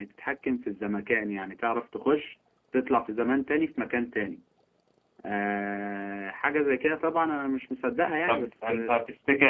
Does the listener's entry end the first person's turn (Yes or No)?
Yes